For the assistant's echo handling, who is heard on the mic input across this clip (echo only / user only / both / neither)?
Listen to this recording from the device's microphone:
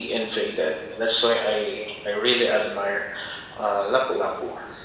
echo only